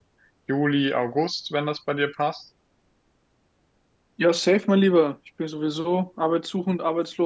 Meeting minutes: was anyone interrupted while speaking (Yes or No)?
No